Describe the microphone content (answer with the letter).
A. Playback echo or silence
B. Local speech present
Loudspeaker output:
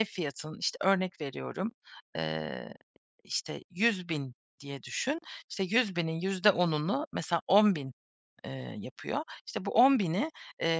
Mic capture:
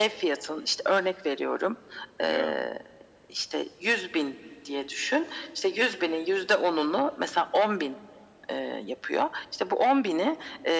B